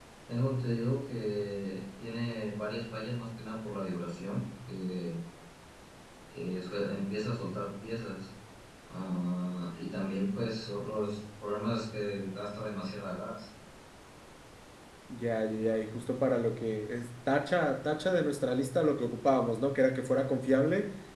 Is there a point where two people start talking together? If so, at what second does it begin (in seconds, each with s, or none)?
none